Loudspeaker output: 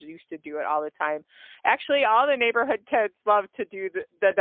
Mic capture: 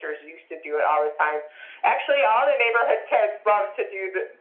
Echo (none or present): present